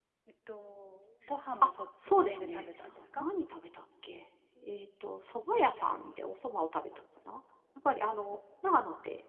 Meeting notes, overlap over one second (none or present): present